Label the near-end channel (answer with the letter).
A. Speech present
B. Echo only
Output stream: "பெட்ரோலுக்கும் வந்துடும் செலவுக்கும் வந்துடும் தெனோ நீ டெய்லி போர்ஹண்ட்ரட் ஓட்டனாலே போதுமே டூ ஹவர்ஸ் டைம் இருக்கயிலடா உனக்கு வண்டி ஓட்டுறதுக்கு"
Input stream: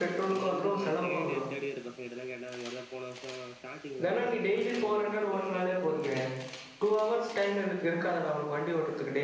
A